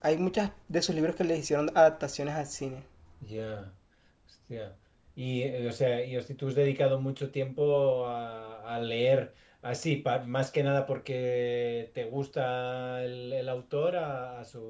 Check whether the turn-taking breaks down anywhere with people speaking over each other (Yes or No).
No